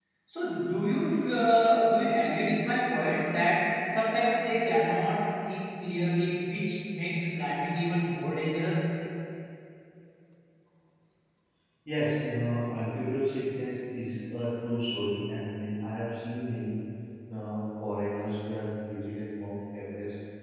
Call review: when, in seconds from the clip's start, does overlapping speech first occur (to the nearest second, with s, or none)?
none